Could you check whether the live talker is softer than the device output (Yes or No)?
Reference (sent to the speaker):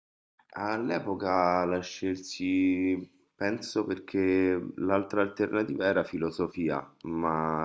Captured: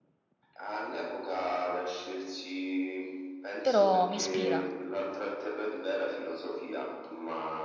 No